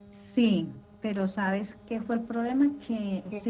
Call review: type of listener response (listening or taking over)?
listening